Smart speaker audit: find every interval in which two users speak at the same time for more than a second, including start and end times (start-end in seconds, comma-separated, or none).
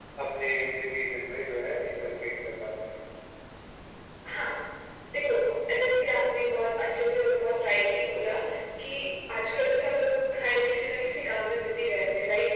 none